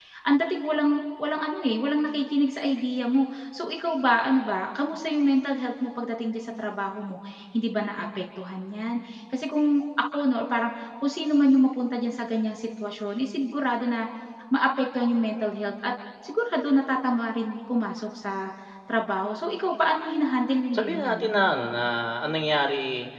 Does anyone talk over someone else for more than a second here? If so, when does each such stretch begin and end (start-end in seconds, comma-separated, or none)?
none